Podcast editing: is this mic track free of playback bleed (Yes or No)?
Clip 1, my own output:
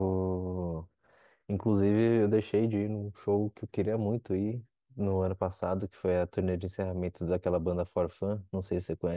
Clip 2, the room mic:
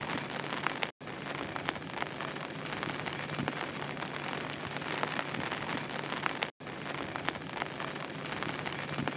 Yes